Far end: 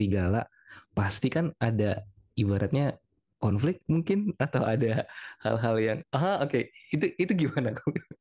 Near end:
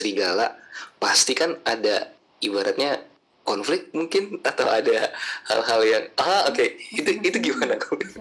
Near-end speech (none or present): present